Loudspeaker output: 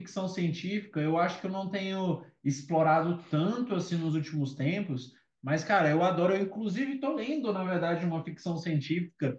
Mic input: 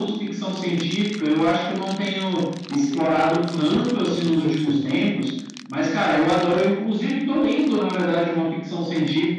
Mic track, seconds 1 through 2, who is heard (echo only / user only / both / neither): echo only